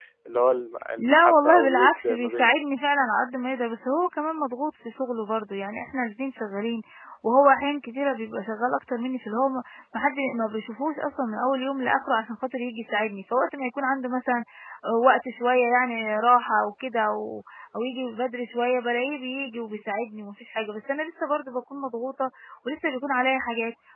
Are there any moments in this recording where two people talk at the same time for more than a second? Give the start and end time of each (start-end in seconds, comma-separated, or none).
1.0-2.5